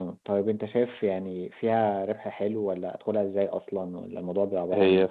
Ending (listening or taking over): taking over